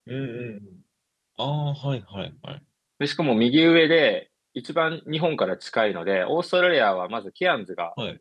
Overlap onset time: none

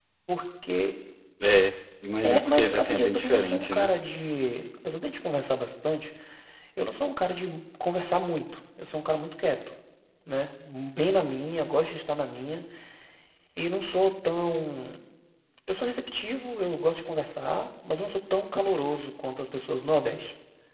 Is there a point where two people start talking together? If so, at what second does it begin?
2 s

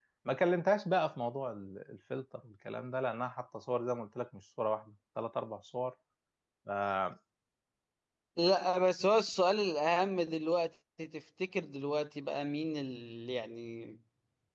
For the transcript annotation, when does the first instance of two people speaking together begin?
none

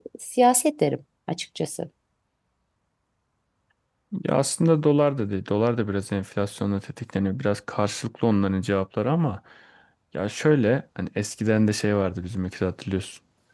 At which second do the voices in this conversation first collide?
none

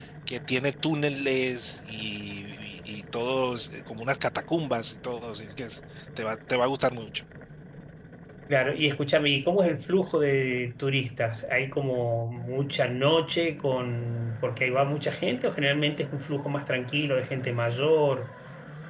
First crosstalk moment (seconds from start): none

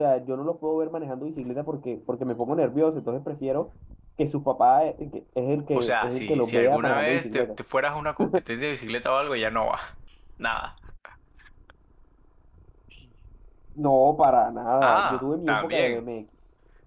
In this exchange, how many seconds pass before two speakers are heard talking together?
6 s

